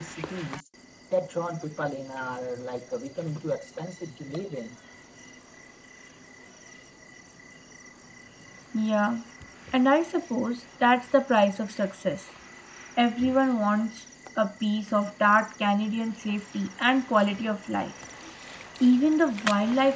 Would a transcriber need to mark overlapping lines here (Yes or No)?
No